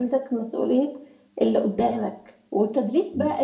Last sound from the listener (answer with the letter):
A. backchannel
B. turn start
A